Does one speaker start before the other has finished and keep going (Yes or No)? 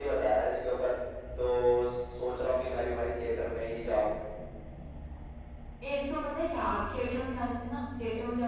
No